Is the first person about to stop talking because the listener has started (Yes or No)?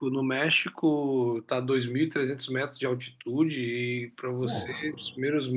No